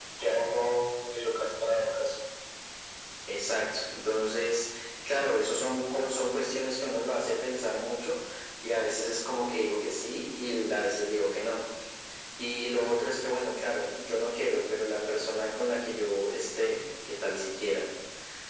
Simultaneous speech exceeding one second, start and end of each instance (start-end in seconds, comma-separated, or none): none